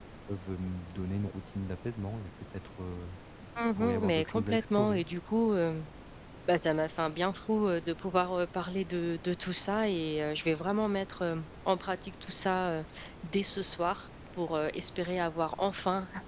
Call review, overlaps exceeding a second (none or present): present